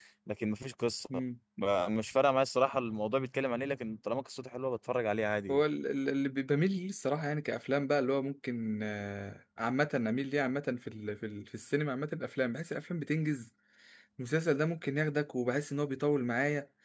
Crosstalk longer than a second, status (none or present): none